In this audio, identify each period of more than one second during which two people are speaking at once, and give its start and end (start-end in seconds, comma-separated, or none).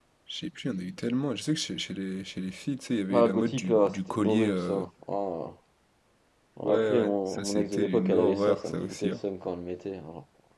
3.1-4.8, 6.6-9.2